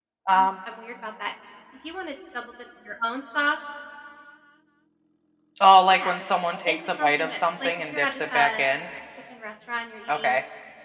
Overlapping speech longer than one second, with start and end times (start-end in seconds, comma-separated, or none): 6.7-8.6